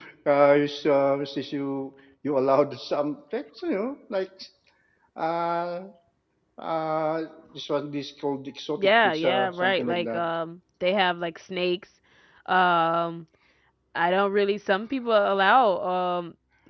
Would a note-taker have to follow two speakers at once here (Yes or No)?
Yes